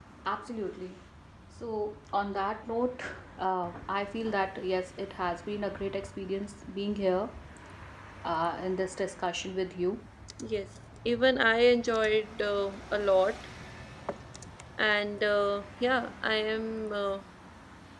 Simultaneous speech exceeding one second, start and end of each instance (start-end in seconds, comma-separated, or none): none